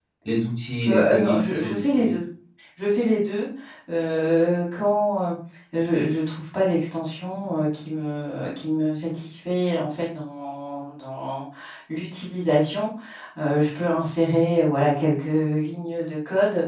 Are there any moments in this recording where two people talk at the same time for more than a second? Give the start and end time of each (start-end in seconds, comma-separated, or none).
0.9-2.1